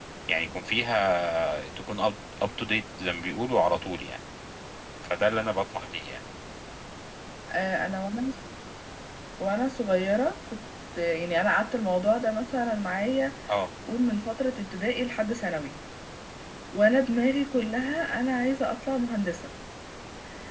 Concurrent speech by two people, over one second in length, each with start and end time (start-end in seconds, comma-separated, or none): none